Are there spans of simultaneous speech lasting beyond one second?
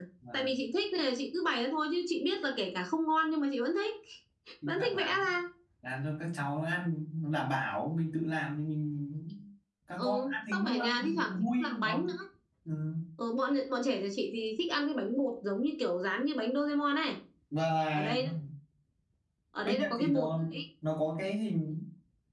Yes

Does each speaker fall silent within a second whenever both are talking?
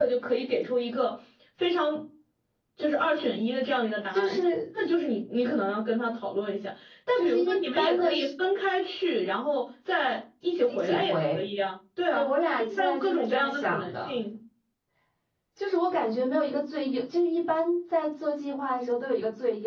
No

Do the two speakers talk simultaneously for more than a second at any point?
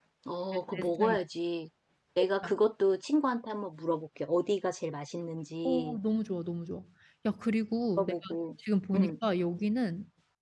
No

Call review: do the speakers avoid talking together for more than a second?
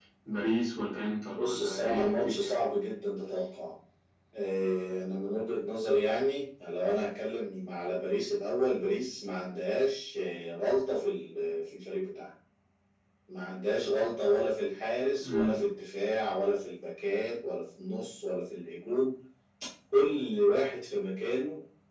No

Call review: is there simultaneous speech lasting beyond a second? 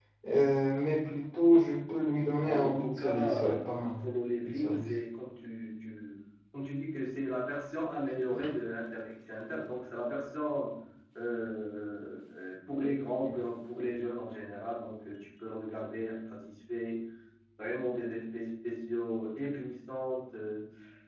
Yes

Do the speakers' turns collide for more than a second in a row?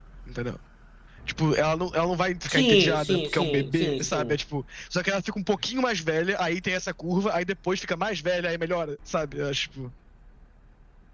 Yes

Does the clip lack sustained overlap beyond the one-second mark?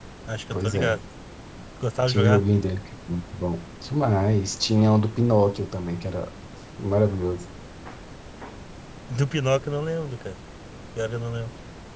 Yes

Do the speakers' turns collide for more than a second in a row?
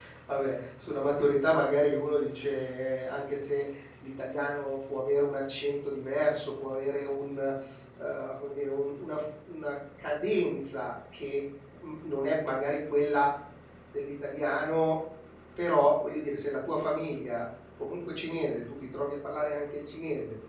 No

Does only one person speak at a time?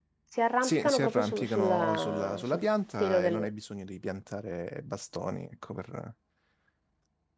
No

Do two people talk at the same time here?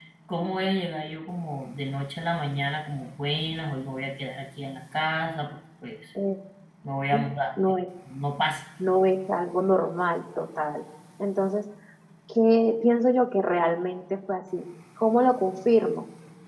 No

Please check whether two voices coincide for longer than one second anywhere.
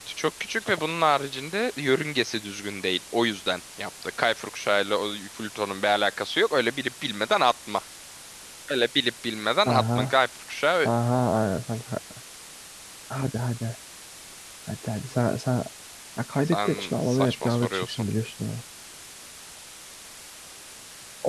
Yes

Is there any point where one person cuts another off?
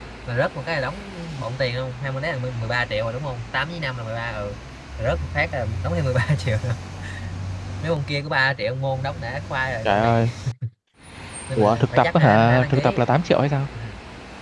Yes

